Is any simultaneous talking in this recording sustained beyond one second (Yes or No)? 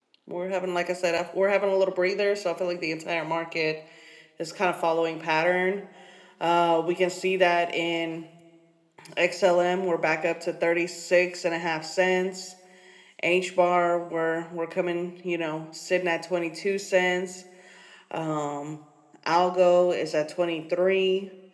No